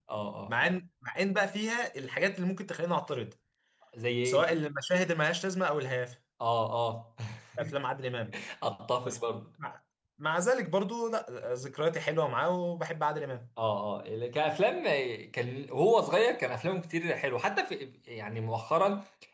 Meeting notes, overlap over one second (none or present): none